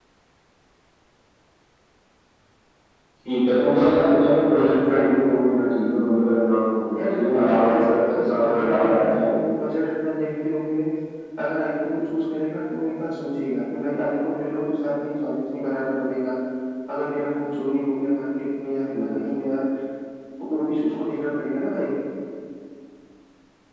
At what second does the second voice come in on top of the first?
7 s

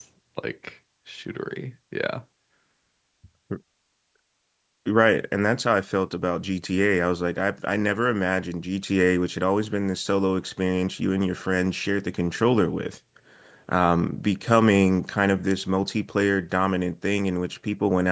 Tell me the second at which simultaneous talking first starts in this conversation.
none

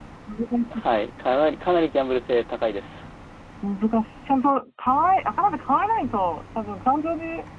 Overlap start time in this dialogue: none

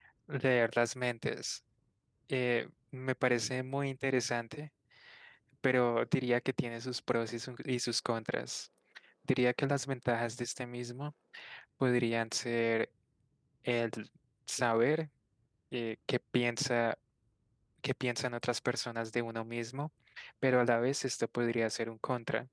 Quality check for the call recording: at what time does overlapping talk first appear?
none

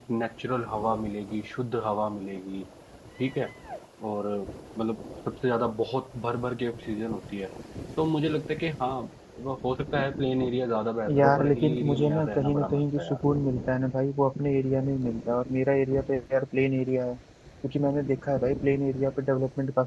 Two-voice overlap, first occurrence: 11 s

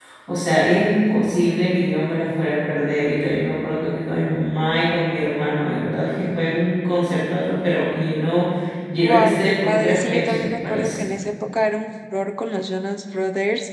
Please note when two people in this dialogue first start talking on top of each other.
9 s

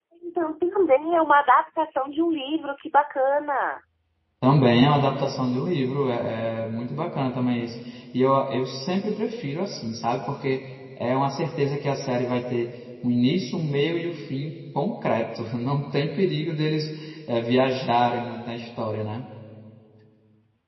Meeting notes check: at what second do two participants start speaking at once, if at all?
none

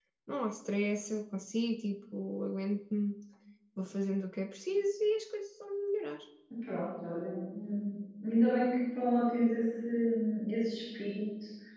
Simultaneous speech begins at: none

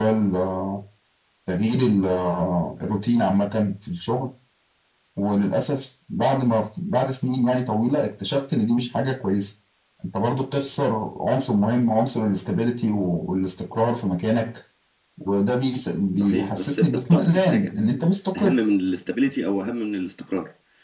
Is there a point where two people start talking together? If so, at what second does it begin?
16 s

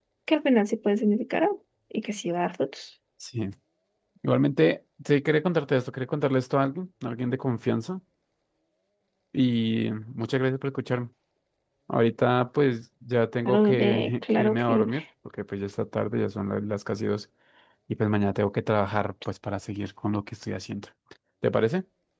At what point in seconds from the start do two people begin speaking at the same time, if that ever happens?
13 s

